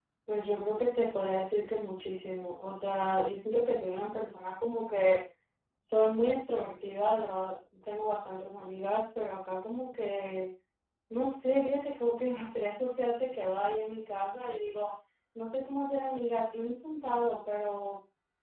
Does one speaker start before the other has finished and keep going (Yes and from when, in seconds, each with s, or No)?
No